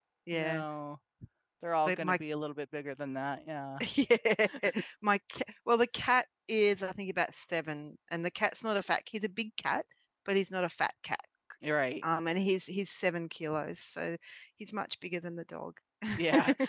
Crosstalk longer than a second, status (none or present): none